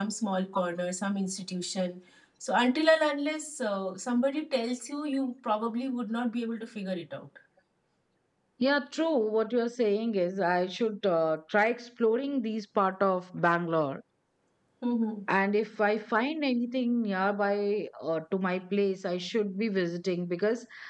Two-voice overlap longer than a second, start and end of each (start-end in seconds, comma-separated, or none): none